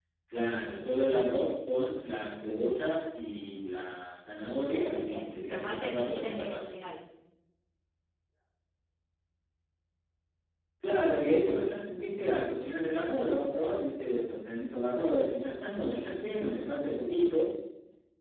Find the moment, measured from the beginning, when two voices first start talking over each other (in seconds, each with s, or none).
5.0 s